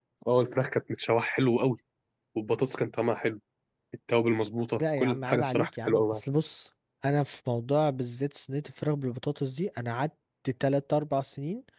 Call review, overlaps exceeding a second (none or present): present